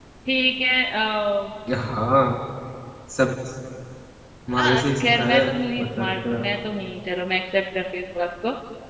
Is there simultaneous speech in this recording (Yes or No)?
Yes